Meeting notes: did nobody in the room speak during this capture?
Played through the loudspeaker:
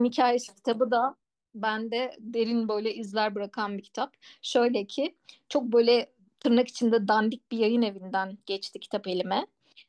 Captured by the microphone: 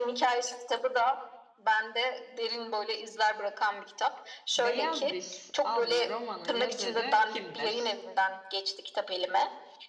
No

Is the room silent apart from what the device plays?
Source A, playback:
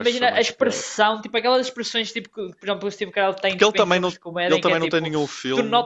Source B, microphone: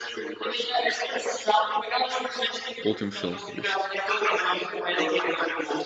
No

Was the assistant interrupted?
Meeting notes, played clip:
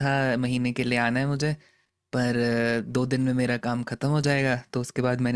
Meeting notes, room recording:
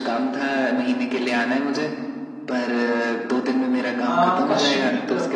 Yes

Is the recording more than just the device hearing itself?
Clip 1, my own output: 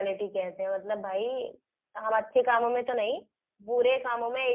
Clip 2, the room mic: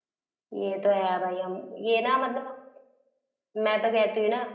Yes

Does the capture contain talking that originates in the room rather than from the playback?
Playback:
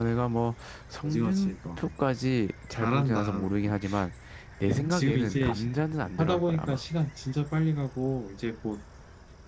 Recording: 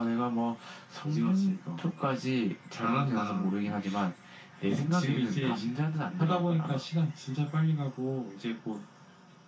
No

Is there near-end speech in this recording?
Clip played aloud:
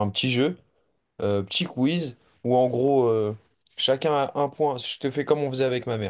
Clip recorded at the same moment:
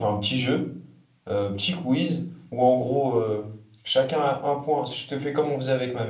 No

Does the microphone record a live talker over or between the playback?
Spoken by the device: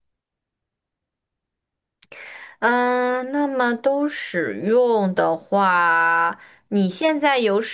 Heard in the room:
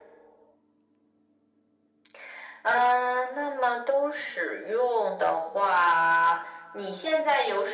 No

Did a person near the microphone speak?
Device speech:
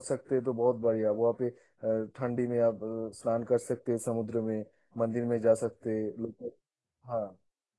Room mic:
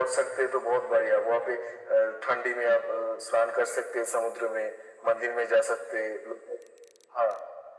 No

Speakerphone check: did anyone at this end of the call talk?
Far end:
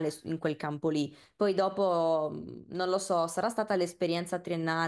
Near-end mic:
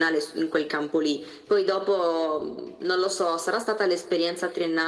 No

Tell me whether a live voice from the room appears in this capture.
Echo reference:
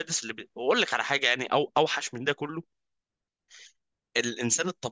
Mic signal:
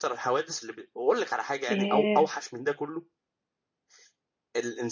Yes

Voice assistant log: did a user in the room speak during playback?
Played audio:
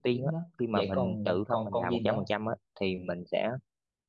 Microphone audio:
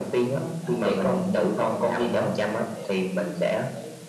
Yes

